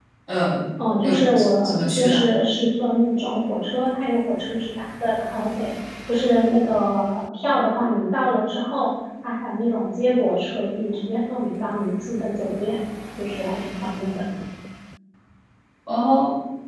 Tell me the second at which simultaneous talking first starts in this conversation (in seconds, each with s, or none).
1.0 s